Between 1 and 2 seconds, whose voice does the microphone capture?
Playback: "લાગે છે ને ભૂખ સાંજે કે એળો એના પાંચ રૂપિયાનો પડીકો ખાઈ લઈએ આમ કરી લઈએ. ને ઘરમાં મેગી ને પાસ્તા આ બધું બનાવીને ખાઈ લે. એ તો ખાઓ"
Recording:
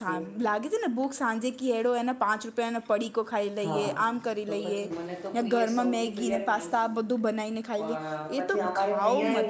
echo only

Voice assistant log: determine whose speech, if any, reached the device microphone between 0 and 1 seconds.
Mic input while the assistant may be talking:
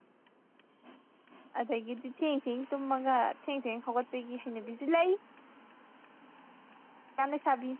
neither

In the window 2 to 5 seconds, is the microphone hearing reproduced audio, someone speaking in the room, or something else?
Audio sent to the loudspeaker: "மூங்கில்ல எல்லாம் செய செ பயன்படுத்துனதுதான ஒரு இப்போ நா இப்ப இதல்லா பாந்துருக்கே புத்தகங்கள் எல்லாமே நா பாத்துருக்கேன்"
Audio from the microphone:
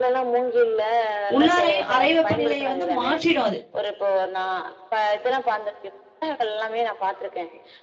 both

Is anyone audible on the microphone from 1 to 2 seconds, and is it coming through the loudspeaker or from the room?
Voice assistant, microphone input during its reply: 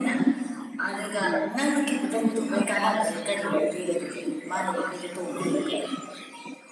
both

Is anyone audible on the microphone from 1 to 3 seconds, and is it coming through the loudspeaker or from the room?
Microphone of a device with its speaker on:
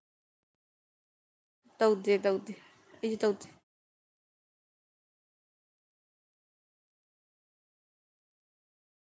user only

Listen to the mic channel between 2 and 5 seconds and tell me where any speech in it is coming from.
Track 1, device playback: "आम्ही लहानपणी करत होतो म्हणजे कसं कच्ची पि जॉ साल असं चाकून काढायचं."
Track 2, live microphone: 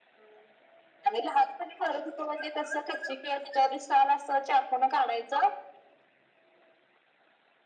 echo only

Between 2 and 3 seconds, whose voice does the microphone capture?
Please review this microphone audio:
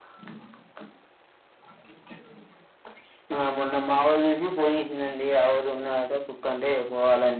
neither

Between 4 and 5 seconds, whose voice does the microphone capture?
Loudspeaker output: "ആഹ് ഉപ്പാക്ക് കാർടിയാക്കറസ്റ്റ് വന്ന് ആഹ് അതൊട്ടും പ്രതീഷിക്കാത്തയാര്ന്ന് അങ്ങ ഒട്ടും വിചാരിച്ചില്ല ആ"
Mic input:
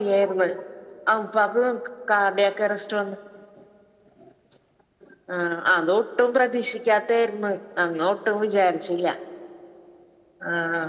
neither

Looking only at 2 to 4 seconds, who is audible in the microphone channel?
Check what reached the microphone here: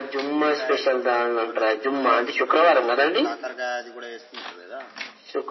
both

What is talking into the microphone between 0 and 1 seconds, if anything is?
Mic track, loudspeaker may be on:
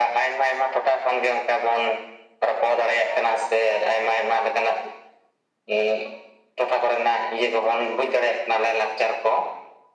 echo only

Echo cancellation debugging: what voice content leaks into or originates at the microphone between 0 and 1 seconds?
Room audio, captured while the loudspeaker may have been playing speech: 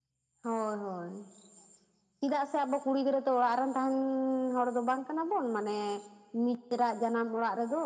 echo only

